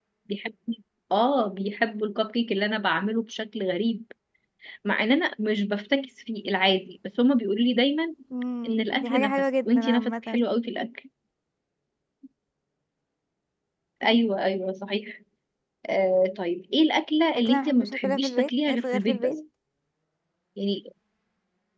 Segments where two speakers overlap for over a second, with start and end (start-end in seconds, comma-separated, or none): 8.7-10.4, 17.5-19.4